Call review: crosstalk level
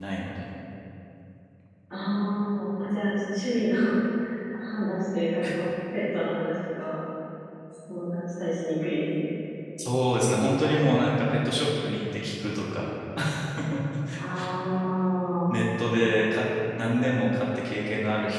none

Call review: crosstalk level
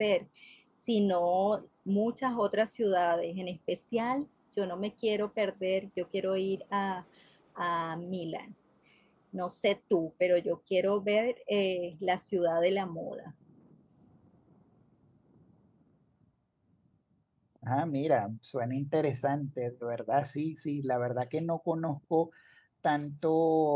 none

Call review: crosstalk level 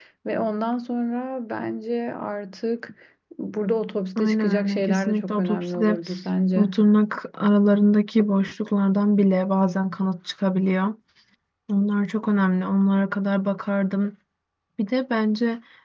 present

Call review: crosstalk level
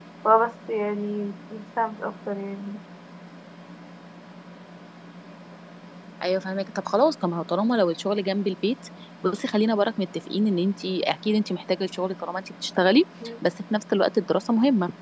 none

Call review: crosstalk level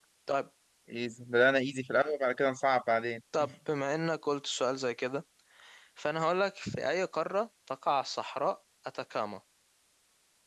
none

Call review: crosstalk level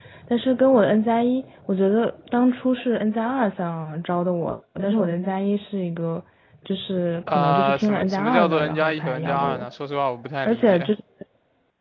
present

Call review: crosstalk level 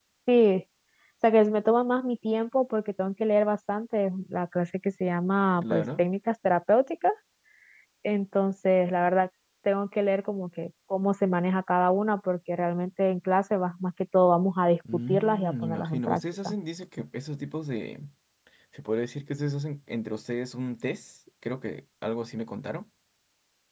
present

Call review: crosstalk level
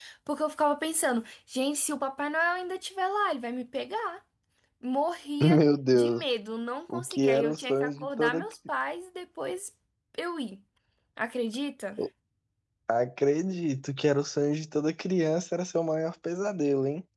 present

